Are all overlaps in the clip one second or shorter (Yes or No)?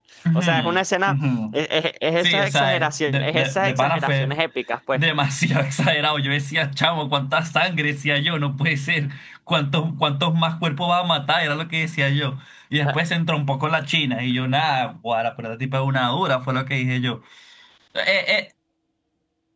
No